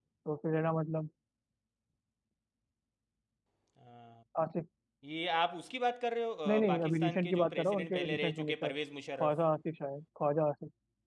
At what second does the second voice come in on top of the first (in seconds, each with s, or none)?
6.5 s